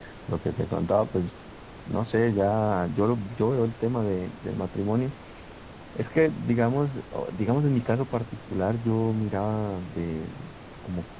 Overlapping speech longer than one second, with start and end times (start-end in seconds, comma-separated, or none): none